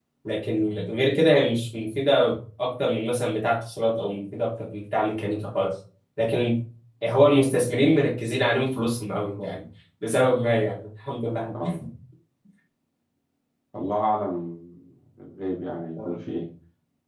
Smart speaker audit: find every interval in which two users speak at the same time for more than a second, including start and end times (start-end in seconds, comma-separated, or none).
none